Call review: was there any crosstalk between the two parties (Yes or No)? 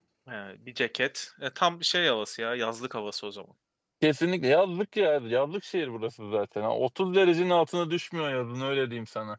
No